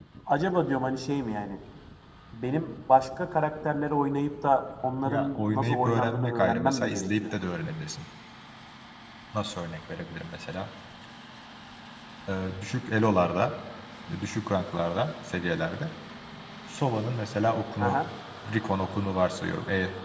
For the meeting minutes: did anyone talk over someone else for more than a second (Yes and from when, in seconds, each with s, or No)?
Yes, from 5.0 s